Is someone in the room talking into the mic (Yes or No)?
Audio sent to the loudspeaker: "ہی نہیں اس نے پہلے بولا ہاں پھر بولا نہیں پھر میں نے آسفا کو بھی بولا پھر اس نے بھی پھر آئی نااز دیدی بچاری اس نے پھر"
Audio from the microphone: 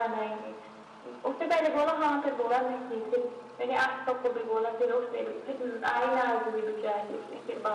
No